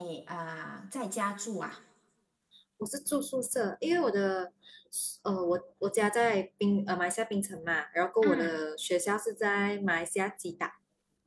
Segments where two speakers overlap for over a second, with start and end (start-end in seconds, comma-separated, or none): none